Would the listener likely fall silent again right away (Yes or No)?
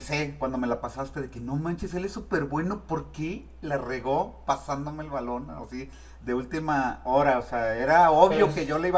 Yes